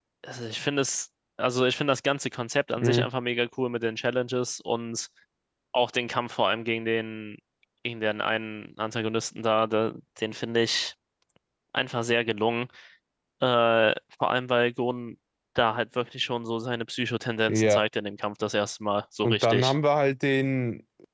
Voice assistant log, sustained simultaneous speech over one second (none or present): none